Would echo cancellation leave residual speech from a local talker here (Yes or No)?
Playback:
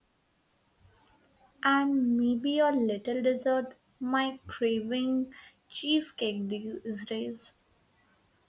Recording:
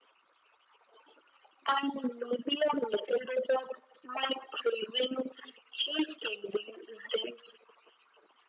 No